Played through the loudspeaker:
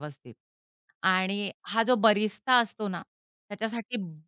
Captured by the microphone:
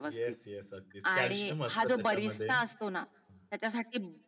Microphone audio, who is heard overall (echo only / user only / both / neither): both